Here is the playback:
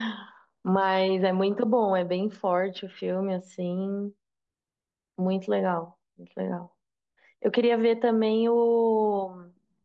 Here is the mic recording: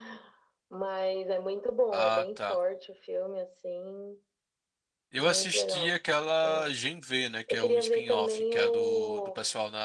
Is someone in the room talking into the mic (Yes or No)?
Yes